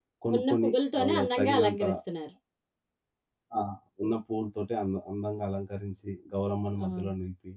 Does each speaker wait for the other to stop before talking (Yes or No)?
No